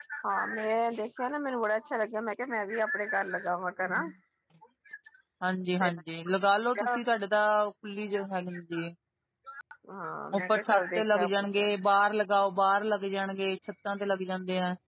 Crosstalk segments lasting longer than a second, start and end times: 10.3-11.7

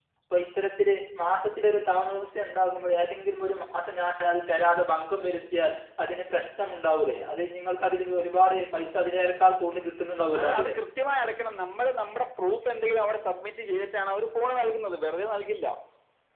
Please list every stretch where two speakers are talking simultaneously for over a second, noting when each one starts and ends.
none

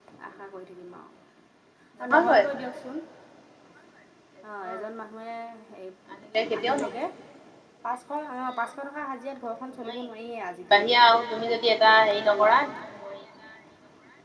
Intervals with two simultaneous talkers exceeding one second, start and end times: none

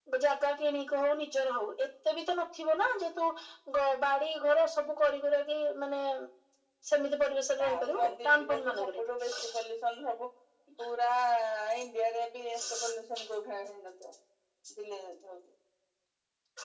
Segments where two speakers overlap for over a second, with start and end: 7.6-8.8

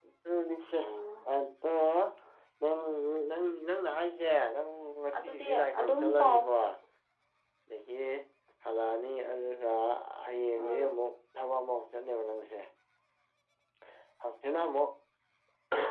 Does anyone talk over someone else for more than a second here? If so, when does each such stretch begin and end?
5.2-6.4

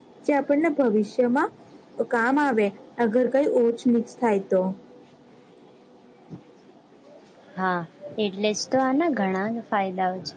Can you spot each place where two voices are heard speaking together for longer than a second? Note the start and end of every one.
none

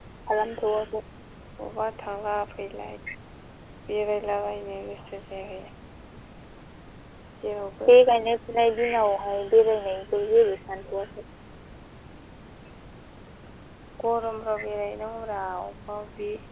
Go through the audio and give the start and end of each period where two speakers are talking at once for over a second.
none

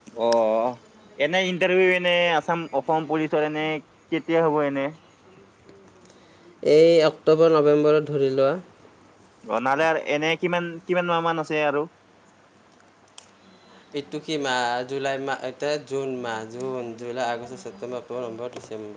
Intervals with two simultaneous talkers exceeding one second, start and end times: none

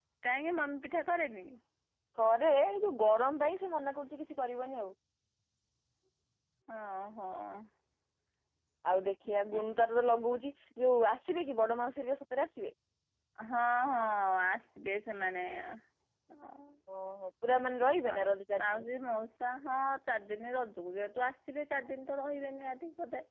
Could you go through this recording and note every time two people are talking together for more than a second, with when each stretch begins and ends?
none

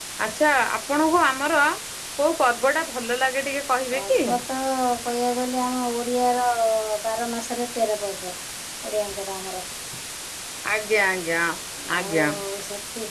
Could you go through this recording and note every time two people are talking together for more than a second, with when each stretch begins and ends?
none

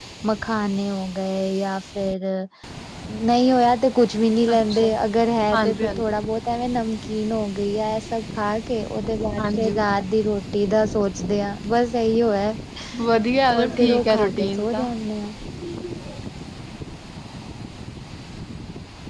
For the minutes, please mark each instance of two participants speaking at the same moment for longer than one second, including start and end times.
13.6-14.8

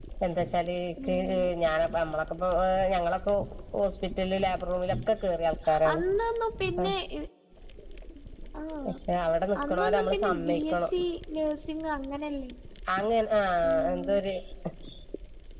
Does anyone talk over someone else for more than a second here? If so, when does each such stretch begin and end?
9.7-10.9

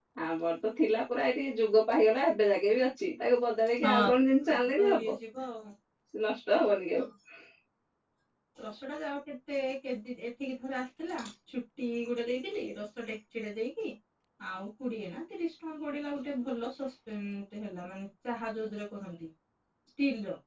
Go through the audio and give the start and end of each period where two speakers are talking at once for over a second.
none

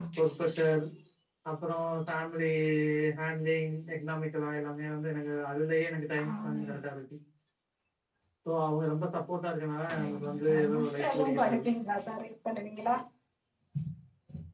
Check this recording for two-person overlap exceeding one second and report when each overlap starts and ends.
10.0-11.7

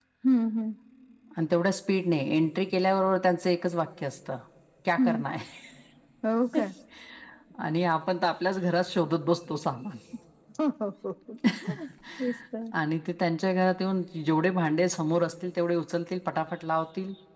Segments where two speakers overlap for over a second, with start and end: none

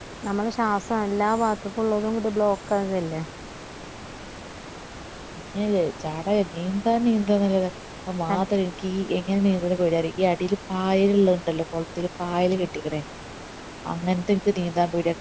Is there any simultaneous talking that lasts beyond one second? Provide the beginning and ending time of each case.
none

